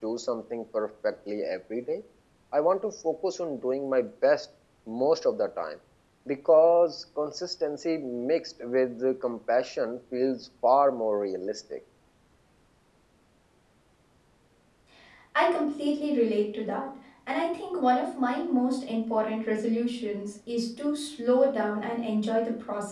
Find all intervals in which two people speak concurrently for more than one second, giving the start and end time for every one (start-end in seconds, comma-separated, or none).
none